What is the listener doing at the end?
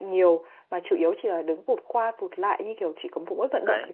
taking over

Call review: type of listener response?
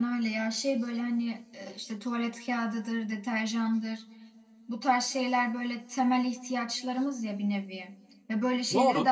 listening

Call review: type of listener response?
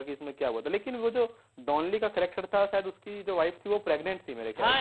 taking over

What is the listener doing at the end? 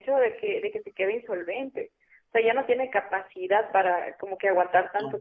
listening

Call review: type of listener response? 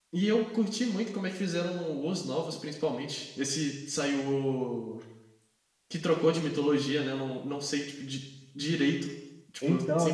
listening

